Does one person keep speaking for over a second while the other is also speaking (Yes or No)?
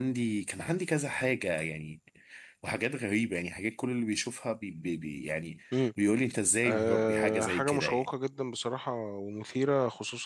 Yes